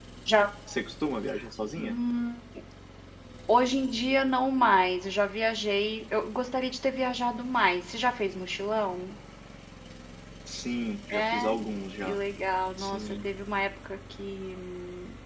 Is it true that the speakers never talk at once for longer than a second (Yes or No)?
Yes